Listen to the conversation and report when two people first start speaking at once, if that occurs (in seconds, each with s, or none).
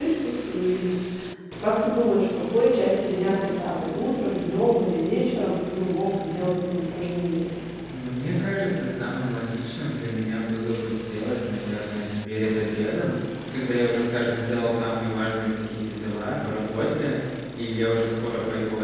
none